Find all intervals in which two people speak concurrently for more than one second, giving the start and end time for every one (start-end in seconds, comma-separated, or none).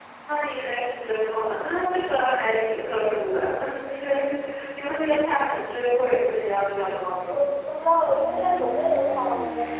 none